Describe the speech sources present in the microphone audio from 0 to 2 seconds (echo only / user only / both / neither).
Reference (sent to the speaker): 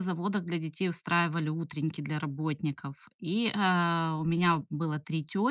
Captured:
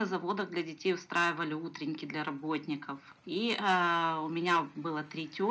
echo only